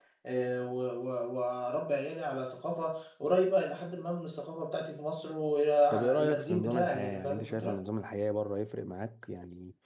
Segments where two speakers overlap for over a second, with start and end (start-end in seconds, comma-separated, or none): 5.9-7.8